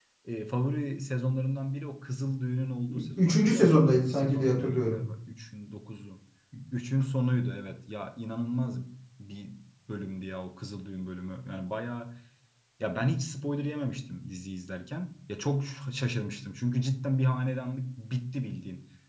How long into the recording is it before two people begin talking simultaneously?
2.9 s

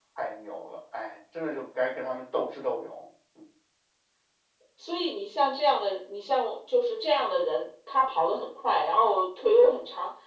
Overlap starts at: none

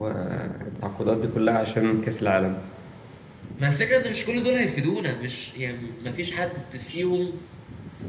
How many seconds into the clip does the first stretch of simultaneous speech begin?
none

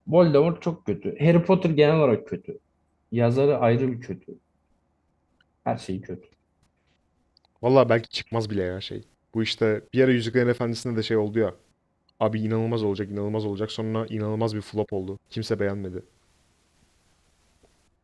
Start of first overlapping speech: none

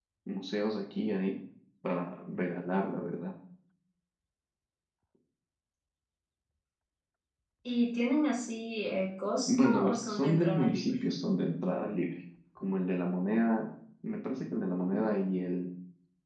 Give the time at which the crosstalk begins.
9.5 s

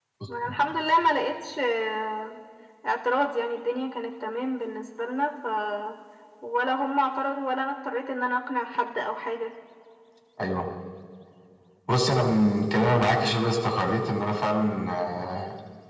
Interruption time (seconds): none

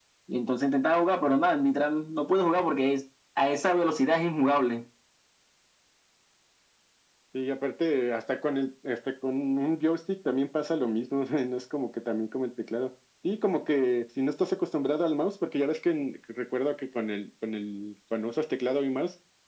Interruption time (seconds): none

